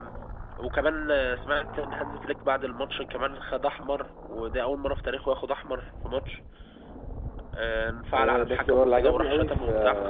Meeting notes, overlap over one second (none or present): present